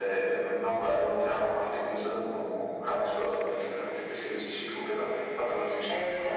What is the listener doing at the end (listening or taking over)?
taking over